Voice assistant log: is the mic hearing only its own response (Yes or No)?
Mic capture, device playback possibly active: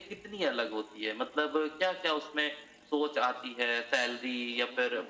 Yes